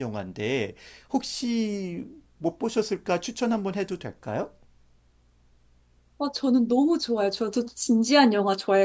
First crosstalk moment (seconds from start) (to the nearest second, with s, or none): none